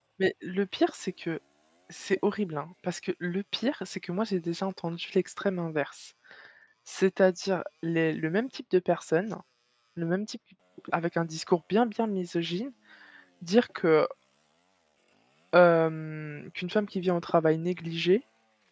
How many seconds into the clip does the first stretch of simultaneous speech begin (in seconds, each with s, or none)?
none